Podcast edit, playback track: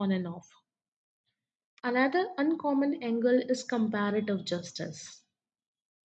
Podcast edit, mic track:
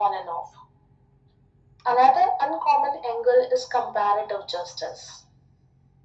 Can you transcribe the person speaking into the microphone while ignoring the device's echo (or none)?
none